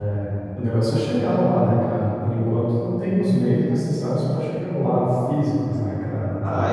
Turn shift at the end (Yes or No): Yes